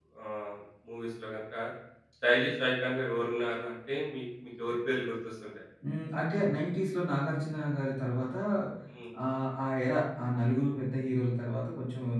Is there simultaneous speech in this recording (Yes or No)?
No